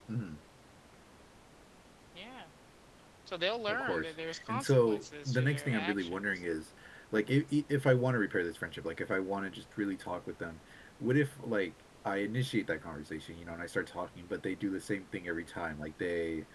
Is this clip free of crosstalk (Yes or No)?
No